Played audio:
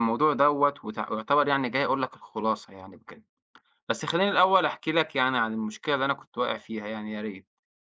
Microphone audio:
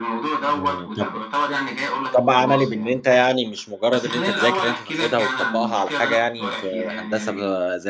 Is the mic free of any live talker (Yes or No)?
No